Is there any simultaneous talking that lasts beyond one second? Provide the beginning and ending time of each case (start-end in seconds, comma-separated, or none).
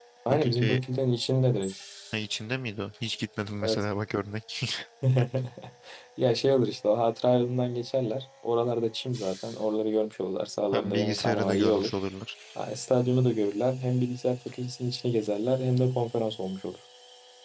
10.7-11.9